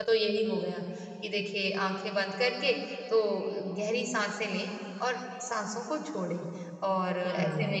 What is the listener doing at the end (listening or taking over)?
listening